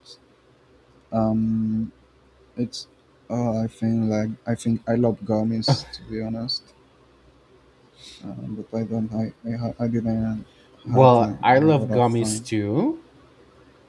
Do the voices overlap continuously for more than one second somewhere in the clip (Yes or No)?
Yes